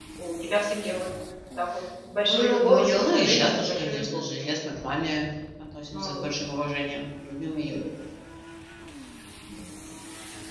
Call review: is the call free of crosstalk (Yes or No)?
No